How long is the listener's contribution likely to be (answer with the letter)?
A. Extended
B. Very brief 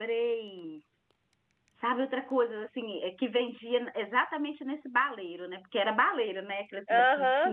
A